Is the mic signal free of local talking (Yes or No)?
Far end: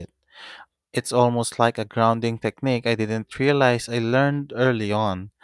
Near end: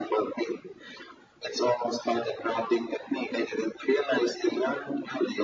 Yes